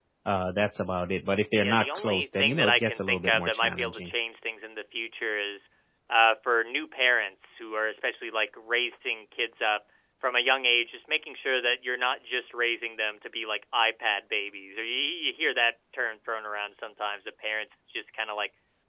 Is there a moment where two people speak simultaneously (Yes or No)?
Yes